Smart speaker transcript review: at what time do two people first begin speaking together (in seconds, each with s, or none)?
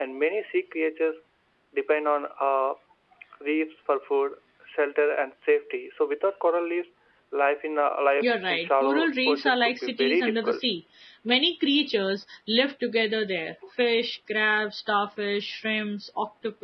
8.2 s